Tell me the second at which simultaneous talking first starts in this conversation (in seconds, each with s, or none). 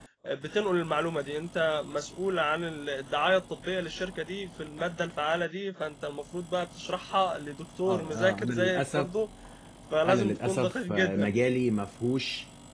7.8 s